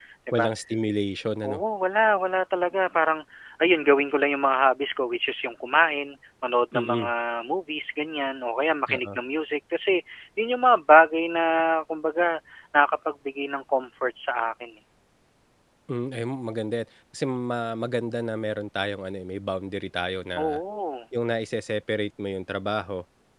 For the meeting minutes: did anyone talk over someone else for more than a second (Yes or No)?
No